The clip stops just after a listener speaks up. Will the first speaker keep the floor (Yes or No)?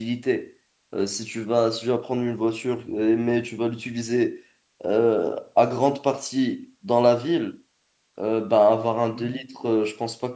Yes